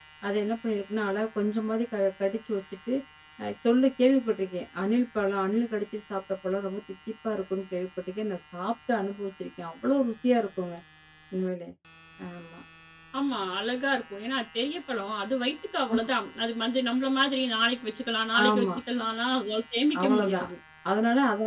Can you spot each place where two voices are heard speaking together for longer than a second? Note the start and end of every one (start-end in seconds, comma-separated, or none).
none